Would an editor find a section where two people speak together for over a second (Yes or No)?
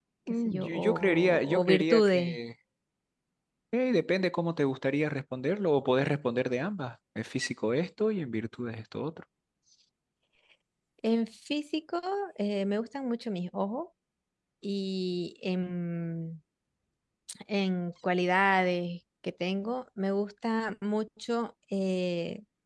Yes